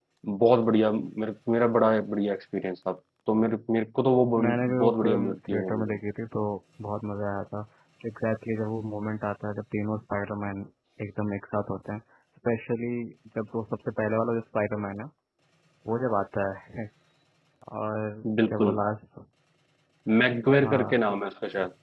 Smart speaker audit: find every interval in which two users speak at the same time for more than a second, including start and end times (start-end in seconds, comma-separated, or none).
4.4-6.0